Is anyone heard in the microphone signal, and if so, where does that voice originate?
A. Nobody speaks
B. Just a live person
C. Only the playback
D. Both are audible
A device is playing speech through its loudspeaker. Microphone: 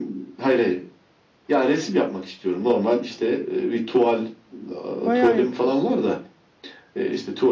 D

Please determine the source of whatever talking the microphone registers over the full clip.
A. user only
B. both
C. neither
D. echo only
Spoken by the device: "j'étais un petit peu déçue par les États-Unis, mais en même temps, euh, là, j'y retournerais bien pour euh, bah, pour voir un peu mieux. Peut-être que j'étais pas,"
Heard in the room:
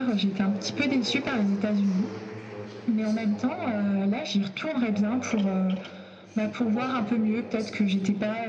B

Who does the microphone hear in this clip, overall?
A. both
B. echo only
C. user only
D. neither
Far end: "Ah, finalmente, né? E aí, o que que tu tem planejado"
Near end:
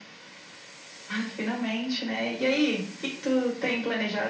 B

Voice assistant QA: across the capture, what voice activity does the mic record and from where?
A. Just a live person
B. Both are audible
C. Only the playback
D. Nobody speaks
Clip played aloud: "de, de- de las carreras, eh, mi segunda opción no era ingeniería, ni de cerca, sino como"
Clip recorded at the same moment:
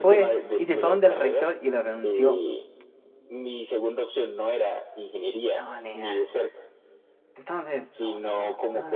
B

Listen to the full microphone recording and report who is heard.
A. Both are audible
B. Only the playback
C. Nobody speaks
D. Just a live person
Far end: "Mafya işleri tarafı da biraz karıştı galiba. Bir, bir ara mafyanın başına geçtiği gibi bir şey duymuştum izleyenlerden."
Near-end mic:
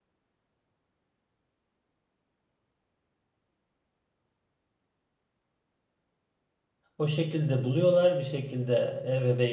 D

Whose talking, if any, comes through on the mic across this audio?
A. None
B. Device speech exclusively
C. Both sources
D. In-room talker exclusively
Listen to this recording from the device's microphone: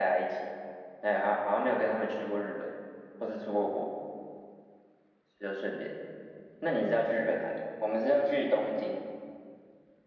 B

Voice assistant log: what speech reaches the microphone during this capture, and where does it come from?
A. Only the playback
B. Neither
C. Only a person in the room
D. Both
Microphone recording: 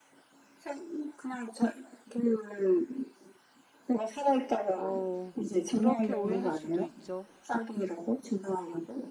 D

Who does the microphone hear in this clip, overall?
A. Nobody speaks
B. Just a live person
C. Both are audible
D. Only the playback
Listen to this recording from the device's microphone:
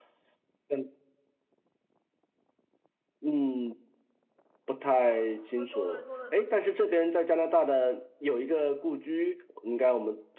C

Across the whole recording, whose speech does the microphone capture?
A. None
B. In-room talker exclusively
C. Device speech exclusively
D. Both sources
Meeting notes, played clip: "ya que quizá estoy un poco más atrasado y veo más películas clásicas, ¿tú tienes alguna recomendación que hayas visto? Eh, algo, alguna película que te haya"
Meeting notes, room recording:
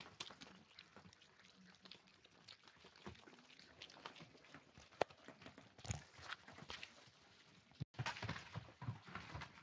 A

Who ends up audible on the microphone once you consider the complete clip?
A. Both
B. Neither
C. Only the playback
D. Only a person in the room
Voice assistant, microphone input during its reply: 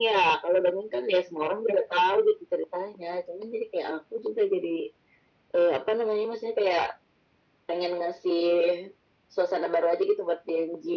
C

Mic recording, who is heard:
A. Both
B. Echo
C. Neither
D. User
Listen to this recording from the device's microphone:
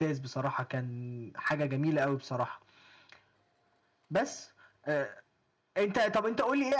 B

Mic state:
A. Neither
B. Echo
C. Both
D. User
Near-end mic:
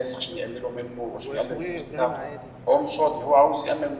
C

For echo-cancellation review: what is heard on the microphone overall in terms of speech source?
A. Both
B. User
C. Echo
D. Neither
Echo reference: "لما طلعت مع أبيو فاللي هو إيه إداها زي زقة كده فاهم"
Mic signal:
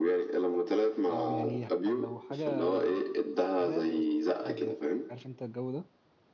A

